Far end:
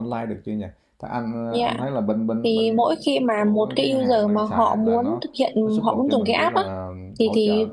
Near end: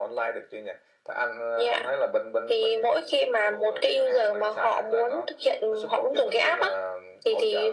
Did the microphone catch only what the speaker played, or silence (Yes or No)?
Yes